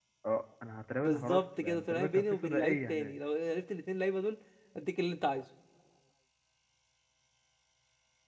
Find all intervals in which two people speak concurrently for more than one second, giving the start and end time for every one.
1.0-3.1

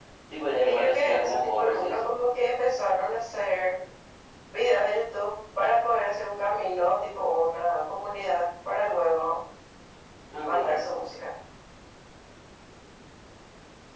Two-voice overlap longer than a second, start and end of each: 0.6-2.1

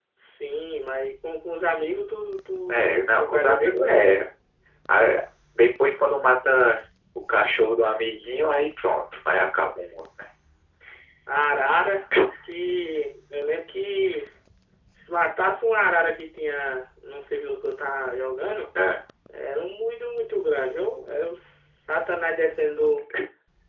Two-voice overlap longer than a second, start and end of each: 2.7-4.0

